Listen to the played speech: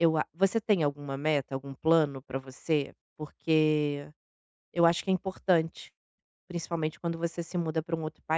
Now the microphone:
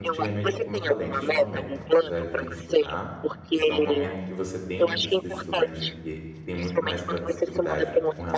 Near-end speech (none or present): present